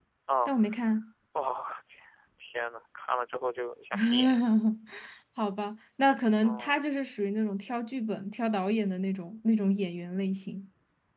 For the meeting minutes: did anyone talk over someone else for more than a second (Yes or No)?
No